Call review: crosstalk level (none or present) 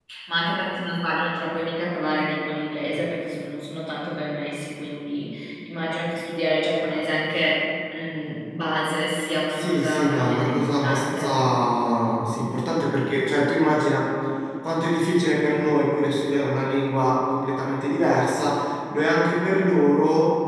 present